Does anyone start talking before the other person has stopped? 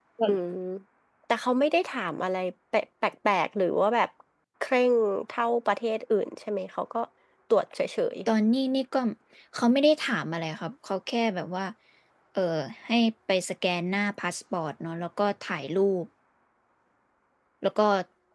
No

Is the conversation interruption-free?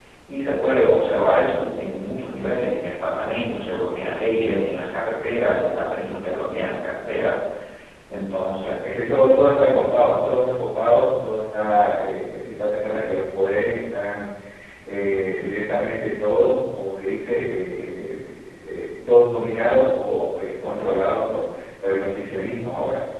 Yes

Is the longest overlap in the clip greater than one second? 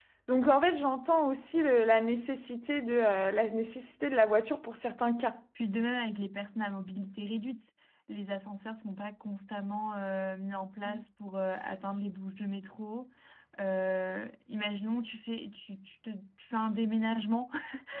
No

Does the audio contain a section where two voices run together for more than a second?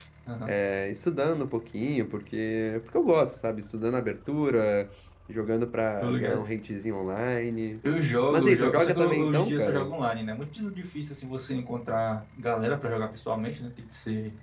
Yes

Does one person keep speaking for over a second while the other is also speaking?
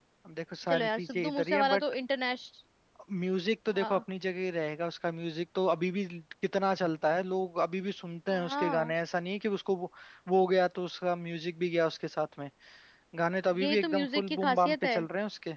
Yes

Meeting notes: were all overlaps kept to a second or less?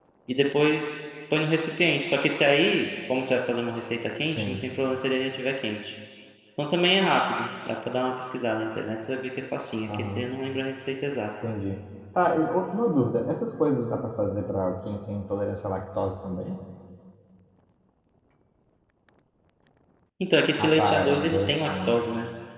No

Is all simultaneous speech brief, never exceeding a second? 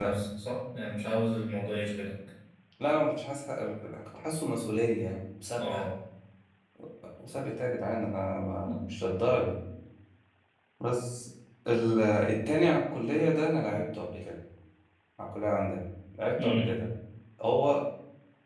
Yes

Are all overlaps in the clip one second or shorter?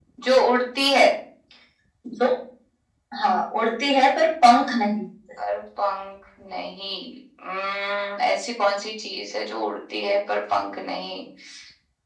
Yes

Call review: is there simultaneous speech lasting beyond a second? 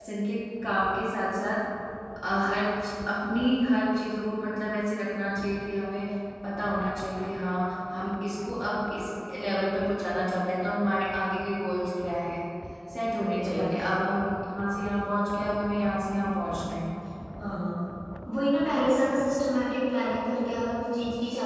No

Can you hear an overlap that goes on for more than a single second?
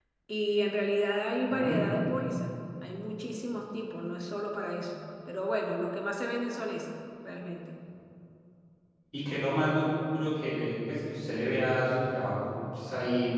No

